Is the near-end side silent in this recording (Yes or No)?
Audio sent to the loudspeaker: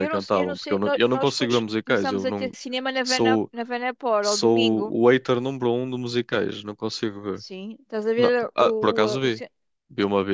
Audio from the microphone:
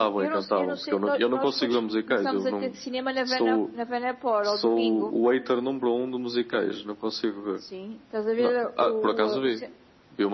Yes